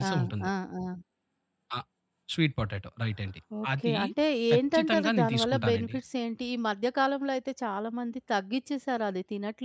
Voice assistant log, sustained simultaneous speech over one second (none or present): present